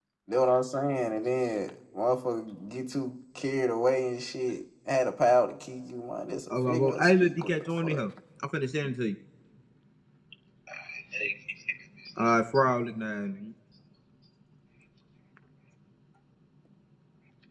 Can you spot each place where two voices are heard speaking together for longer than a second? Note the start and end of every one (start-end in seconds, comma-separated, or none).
6.5-8.0